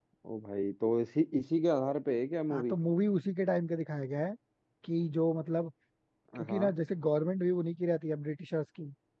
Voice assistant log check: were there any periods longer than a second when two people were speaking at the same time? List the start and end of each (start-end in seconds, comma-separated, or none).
none